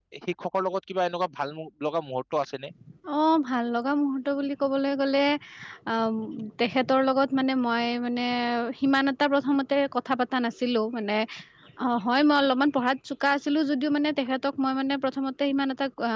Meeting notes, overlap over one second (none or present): none